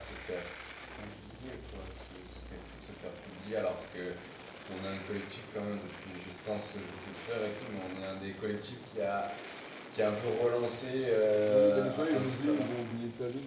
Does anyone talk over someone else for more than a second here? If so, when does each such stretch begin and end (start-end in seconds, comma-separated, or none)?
11.5-12.7